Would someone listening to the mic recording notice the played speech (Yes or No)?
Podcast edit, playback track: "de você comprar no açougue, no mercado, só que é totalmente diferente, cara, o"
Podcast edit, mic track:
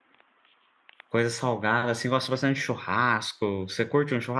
No